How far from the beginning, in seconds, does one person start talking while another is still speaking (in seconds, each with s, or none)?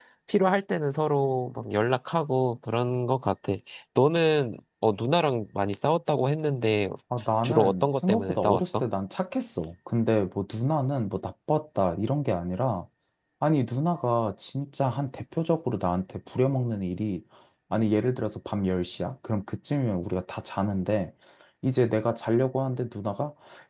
7.4 s